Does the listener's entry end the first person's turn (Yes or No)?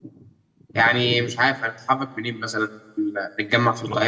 Yes